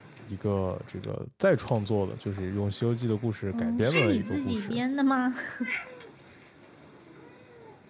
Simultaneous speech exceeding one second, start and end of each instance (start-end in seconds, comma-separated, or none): 3.5-4.8